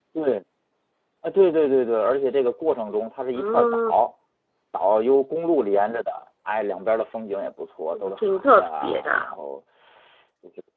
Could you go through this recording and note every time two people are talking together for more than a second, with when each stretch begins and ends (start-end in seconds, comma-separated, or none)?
7.9-9.2